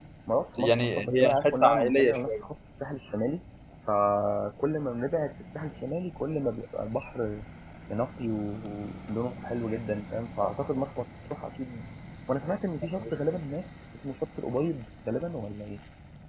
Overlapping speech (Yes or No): Yes